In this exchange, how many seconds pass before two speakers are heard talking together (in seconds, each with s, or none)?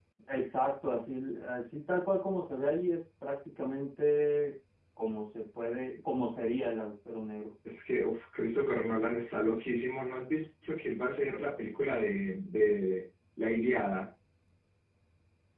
none